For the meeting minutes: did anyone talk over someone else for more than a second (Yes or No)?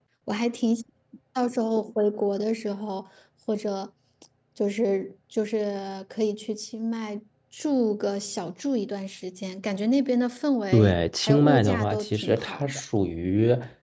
Yes